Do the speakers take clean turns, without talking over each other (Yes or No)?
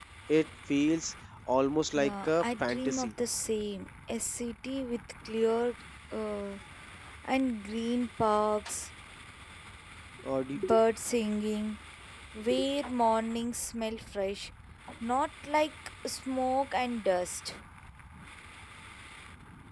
No